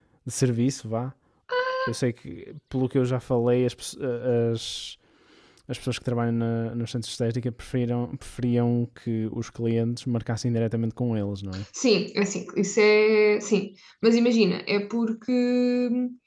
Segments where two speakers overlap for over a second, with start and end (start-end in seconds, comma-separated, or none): none